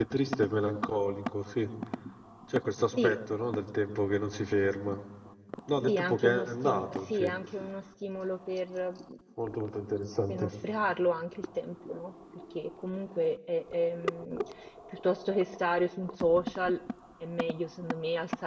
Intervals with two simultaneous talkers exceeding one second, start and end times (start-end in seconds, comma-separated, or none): 5.9-7.3